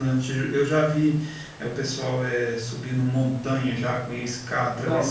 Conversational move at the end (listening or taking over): listening